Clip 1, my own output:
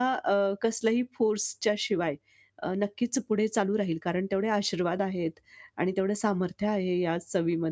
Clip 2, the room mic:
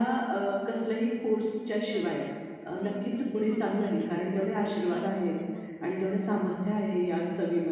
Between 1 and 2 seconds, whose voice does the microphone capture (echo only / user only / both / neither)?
both